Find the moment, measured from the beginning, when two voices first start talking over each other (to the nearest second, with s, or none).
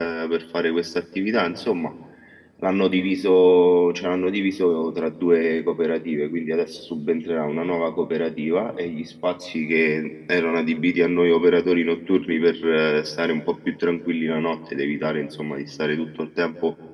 none